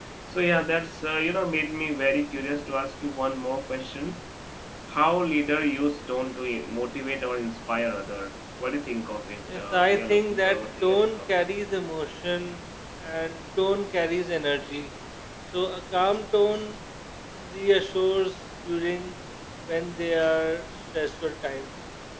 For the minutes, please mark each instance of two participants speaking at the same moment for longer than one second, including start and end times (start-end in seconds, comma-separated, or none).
9.6-11.5